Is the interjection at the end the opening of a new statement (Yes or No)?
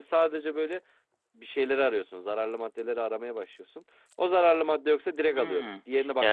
Yes